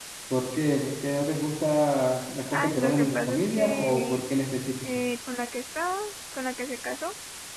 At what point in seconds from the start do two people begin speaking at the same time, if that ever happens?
2.5 s

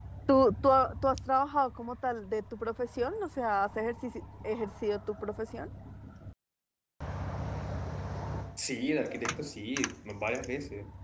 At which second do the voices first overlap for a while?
none

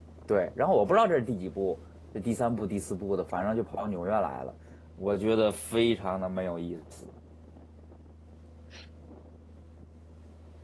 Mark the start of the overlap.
none

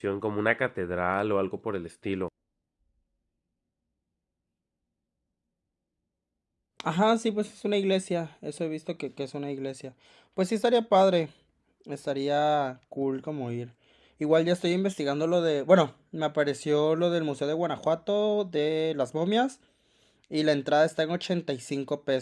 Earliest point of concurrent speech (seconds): none

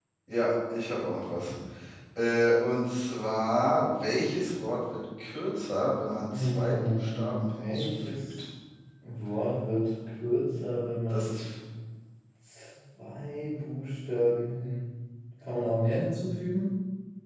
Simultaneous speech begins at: 6.3 s

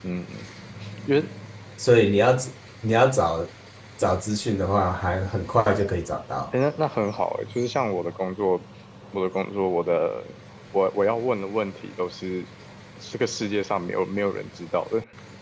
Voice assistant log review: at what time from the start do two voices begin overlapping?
none

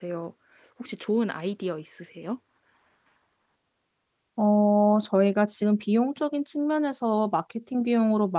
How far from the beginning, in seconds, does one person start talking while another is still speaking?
none

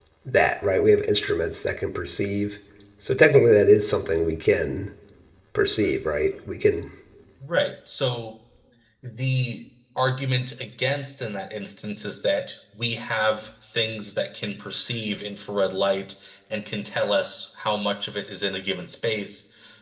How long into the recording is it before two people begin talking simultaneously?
none

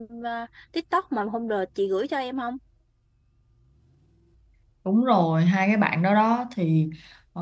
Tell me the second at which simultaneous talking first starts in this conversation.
none

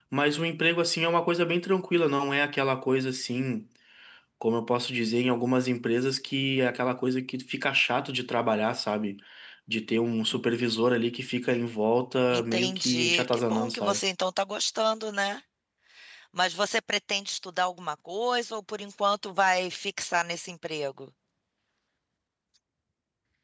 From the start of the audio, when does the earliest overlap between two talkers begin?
12.3 s

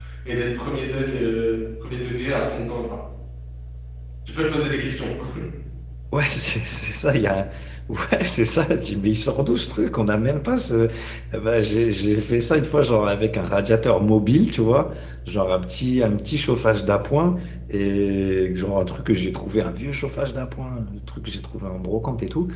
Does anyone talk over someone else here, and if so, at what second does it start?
none

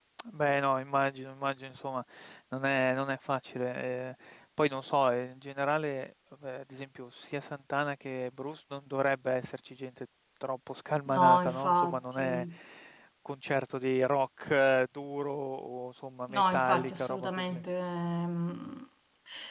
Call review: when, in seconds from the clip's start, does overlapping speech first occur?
11.1 s

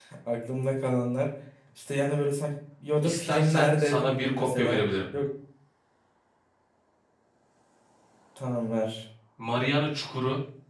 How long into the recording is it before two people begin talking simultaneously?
3.0 s

